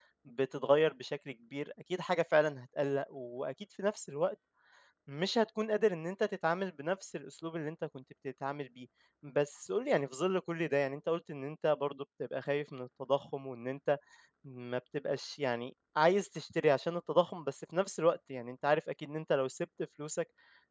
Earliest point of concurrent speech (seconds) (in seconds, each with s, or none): none